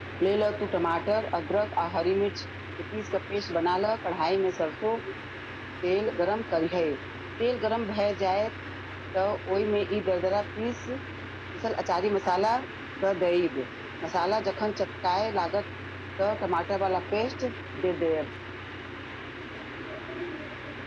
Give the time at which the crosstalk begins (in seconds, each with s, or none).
none